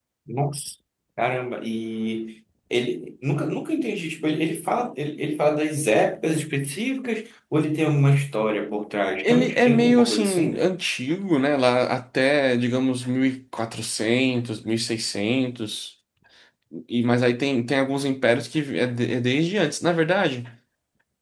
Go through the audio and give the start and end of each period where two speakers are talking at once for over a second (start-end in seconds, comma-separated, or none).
9.2-10.6